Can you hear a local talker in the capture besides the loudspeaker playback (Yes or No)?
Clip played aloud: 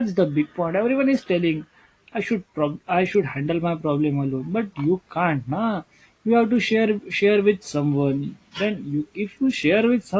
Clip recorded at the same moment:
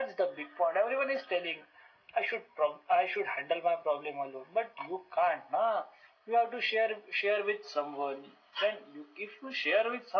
No